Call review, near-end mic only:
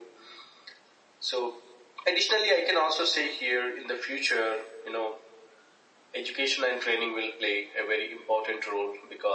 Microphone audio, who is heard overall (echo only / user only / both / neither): echo only